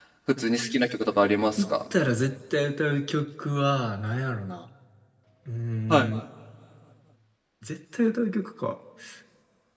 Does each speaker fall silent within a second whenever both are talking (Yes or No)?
Yes